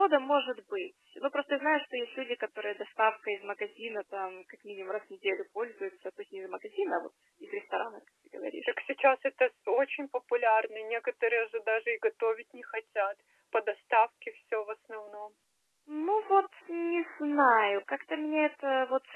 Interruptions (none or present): none